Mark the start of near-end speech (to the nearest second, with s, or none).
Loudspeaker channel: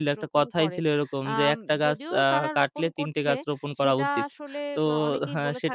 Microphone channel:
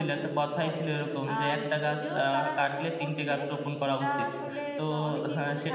none